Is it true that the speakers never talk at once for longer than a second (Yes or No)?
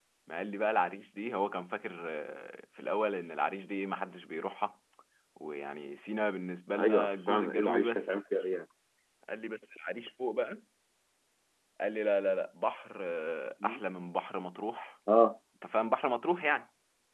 No